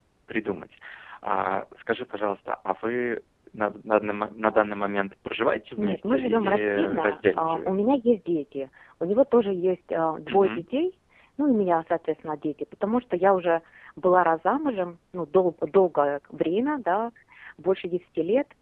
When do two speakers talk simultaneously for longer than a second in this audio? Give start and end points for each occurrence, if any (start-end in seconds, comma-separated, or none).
5.8-7.7